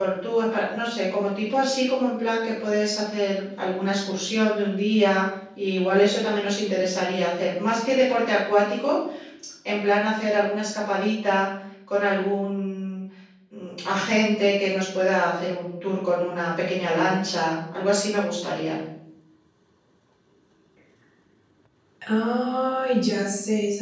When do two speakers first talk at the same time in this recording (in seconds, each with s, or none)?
none